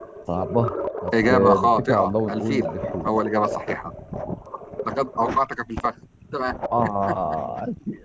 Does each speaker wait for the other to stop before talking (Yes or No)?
No